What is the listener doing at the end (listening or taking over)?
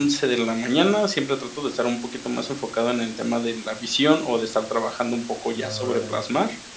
listening